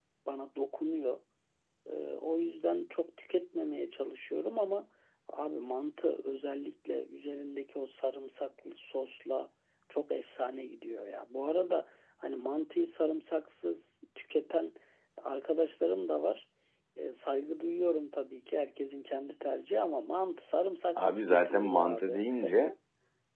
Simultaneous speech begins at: 21 s

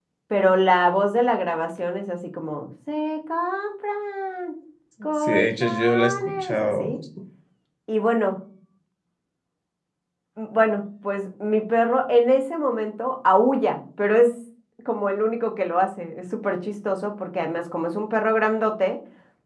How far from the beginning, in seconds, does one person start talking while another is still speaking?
5 s

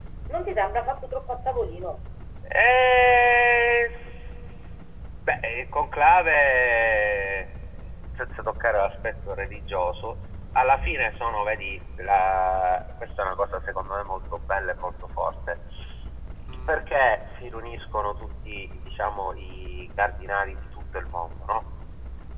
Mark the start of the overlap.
none

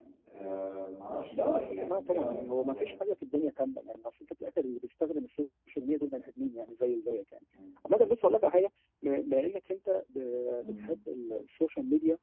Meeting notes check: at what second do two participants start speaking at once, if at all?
1 s

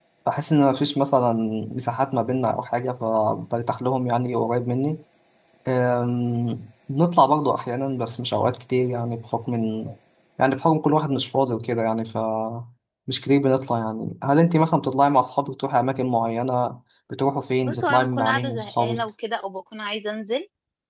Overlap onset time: 18 s

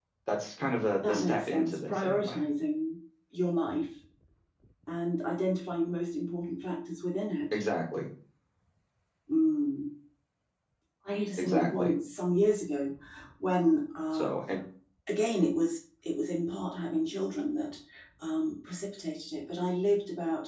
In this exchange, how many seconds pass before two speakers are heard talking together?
1 s

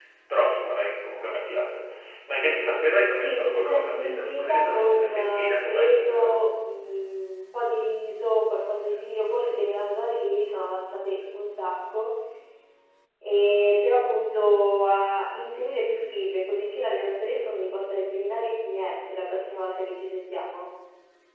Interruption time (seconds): 3 s

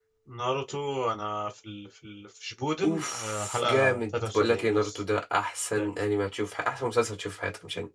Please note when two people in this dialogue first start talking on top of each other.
3 s

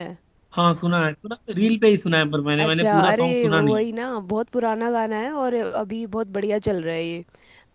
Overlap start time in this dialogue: 3 s

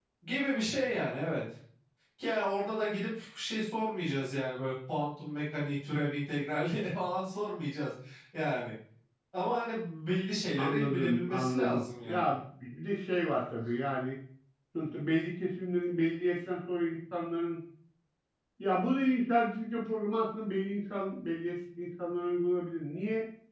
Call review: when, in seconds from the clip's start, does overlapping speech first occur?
11 s

